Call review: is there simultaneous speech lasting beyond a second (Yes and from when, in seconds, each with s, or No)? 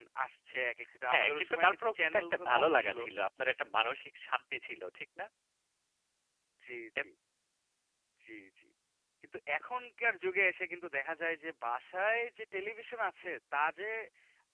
Yes, from 1.1 s